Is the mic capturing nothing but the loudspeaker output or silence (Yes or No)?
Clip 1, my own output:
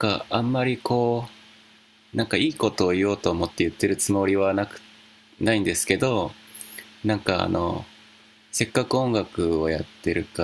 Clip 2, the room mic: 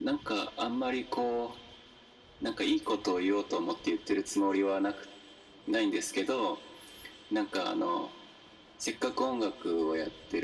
Yes